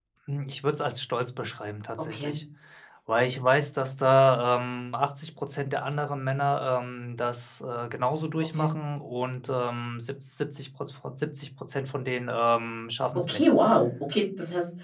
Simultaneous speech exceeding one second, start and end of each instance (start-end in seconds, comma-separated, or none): none